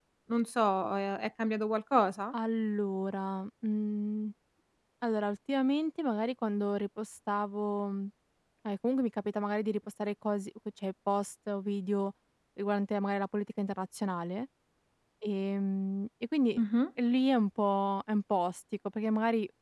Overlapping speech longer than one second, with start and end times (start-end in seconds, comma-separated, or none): none